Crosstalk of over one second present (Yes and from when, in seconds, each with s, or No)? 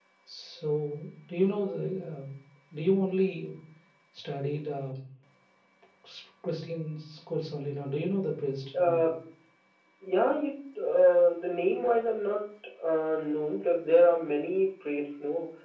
No